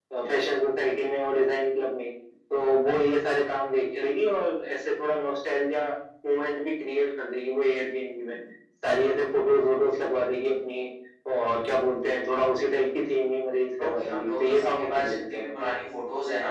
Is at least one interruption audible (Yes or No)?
Yes